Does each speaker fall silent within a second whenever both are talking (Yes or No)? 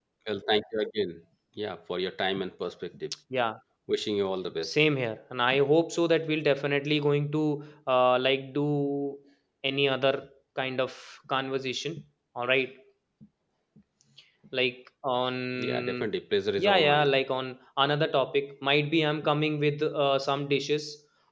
Yes